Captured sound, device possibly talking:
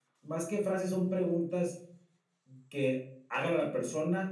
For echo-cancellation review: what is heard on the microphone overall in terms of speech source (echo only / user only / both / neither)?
echo only